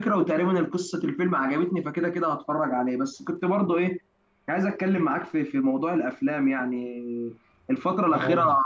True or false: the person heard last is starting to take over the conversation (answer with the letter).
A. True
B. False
B